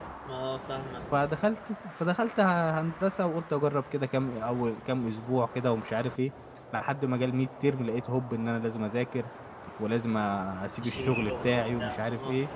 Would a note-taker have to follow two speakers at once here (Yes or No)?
Yes